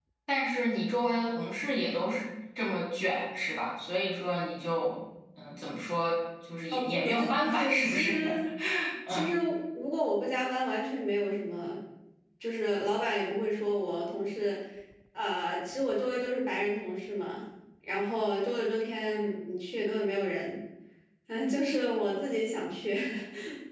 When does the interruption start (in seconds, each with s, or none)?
6.7 s